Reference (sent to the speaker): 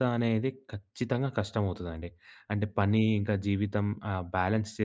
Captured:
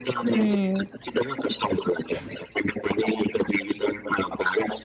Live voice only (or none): హ్మ్.